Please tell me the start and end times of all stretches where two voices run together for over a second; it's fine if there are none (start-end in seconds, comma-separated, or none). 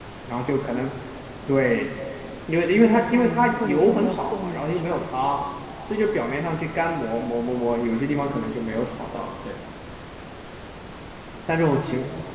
2.8-5.1